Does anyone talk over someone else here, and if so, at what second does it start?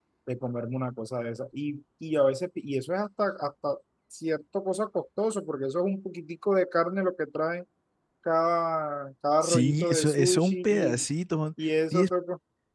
9.4 s

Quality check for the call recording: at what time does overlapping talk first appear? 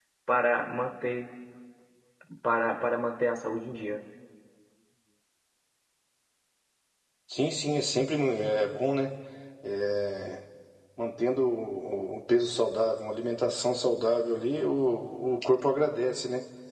none

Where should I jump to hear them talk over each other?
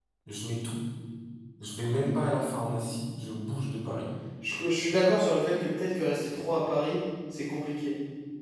none

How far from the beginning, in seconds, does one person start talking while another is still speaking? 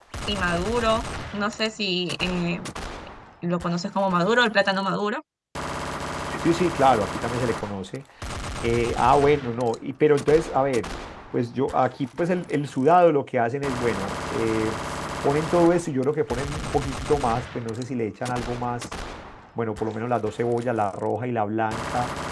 none

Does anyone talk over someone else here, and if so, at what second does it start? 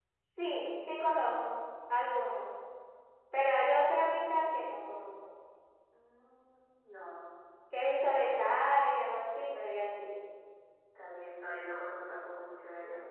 none

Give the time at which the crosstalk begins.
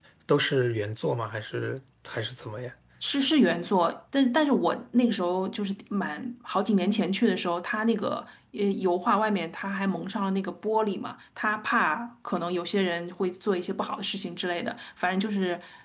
none

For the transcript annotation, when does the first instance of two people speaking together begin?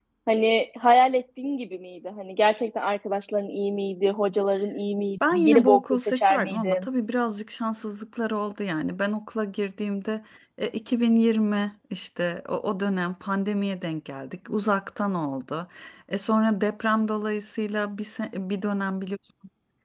5.2 s

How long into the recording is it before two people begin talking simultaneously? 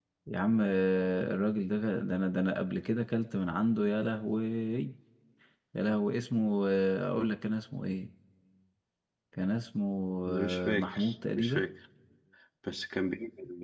10.3 s

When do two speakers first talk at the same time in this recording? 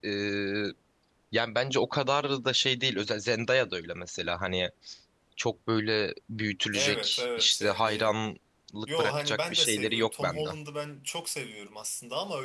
6.7 s

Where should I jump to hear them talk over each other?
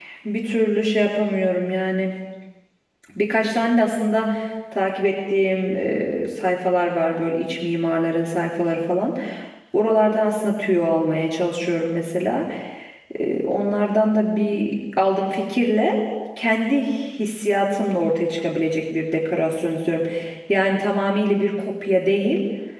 none

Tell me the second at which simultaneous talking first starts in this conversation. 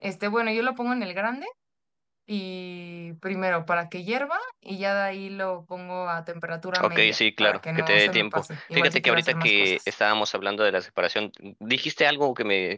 6.7 s

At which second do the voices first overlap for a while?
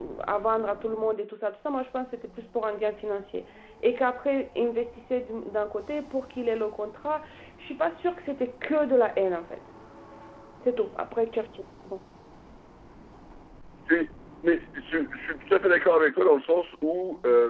none

